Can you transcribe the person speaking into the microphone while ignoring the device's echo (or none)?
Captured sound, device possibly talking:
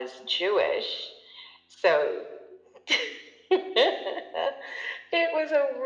none